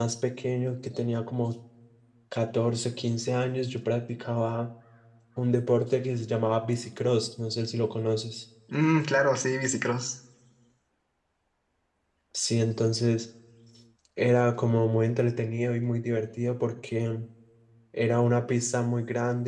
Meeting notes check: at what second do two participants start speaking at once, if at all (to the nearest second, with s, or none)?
none